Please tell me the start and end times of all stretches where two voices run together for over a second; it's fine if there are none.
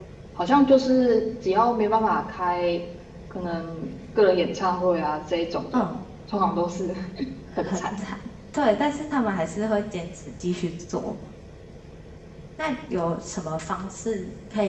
none

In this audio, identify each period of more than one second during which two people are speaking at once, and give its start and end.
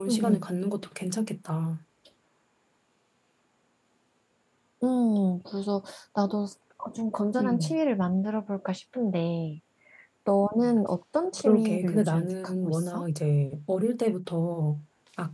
11.4-13.0

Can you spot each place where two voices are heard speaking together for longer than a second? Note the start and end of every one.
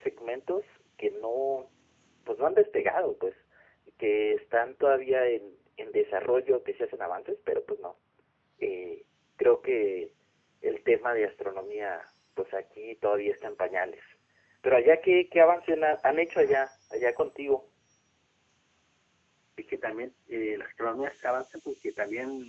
none

